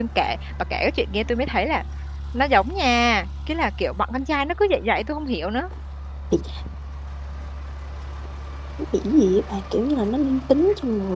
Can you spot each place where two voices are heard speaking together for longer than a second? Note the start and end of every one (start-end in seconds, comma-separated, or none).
none